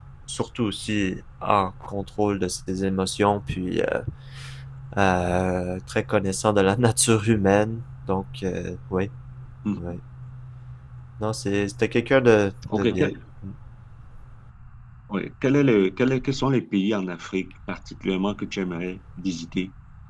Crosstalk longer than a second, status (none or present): none